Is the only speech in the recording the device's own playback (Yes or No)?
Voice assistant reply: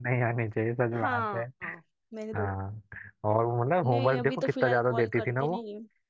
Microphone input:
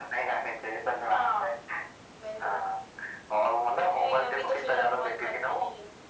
Yes